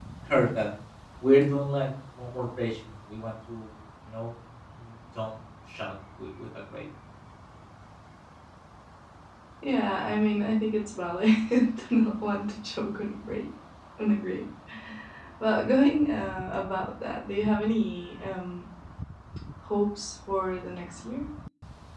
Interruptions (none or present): none